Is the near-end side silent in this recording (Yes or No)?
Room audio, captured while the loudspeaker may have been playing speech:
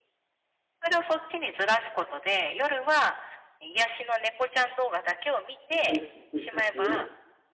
No